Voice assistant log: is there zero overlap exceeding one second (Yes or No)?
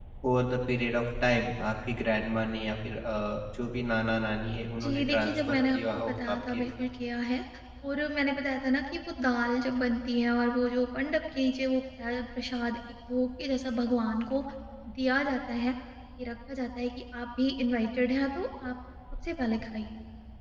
No